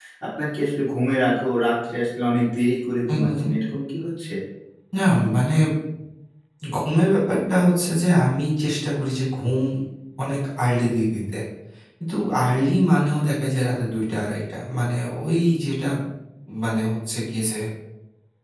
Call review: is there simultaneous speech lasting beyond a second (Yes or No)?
No